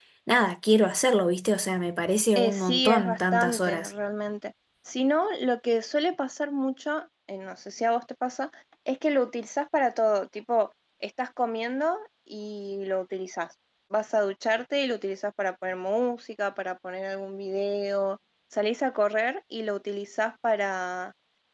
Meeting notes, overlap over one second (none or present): present